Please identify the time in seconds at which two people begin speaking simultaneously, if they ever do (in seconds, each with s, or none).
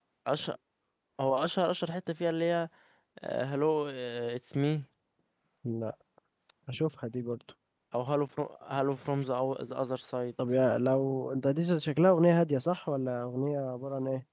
none